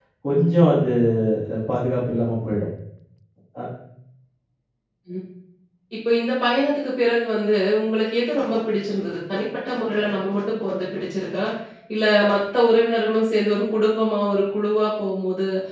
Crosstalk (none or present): none